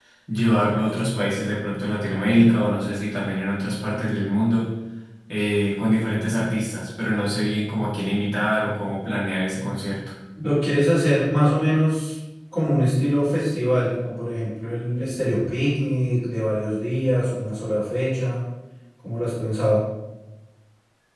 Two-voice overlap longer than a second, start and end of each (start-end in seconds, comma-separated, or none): none